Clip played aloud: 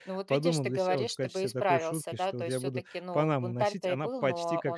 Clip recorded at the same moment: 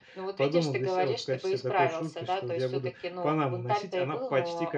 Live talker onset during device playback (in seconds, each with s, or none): none